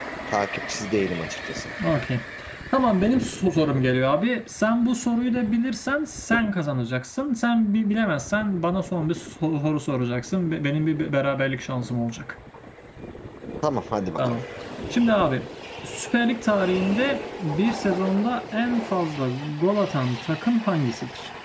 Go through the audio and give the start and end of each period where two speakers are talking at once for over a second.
none

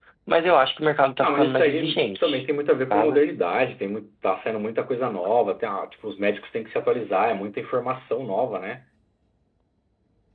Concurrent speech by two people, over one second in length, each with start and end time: 1.2-2.4

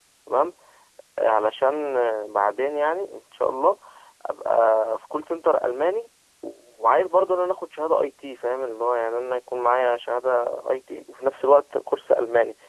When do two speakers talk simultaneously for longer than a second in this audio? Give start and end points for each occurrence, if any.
none

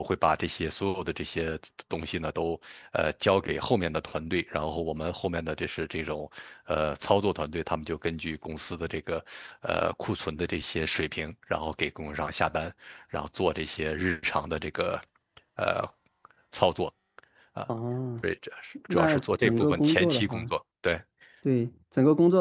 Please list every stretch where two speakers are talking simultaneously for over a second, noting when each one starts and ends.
18.9-20.5

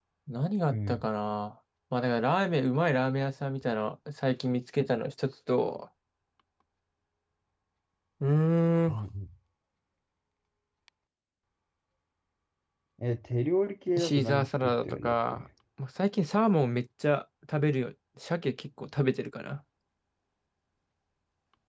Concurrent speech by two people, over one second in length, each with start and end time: 14.0-15.4

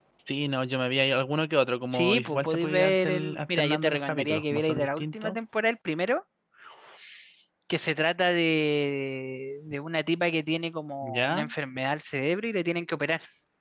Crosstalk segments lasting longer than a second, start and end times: 1.9-5.4

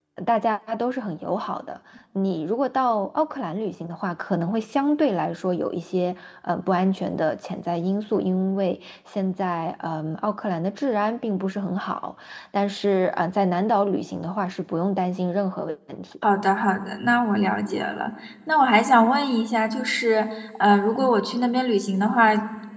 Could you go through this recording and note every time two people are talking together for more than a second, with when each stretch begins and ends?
none

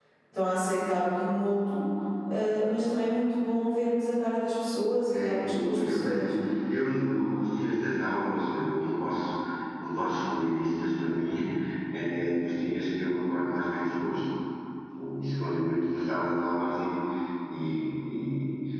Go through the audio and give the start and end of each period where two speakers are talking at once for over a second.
5.1-6.3

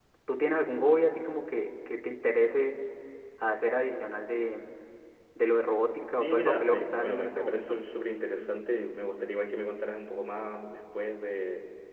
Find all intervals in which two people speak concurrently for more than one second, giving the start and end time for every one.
6.1-7.8

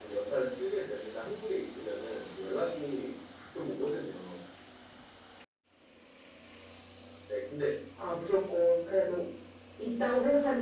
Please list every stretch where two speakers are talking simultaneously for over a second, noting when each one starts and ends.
none

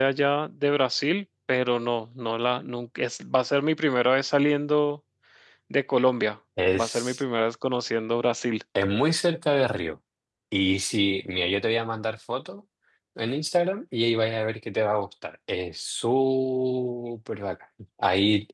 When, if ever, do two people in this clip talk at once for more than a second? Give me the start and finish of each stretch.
none

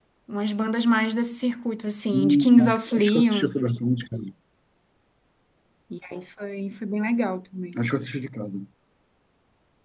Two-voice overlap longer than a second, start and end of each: 2.1-3.5

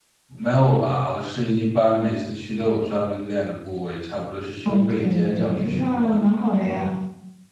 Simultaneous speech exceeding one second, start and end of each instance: 4.6-6.2

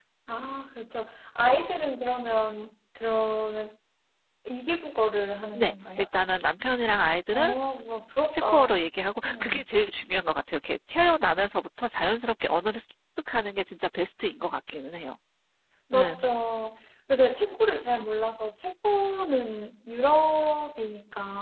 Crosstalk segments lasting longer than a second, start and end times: none

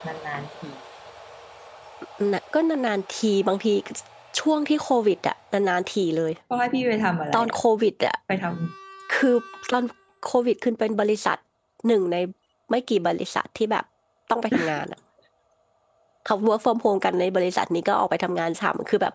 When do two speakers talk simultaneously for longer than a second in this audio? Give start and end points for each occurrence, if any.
none

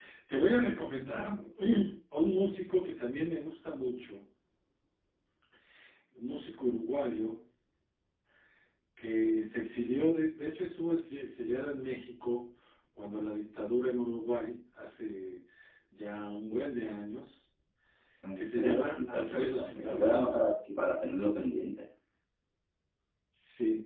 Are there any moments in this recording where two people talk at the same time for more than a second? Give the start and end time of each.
18.4-20.4

